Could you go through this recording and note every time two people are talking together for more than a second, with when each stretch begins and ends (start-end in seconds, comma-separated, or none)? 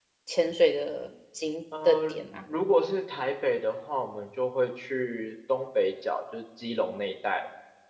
none